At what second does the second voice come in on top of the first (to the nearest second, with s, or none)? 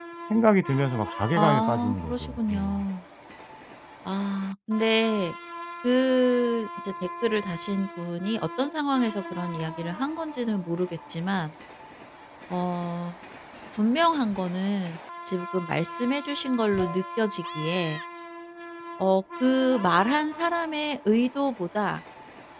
1 s